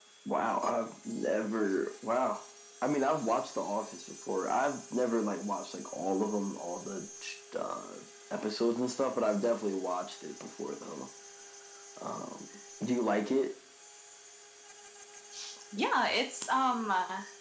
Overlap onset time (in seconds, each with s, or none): none